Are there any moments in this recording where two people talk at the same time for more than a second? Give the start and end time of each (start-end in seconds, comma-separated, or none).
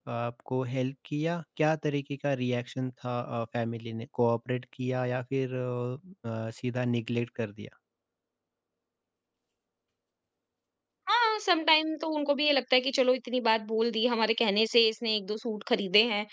none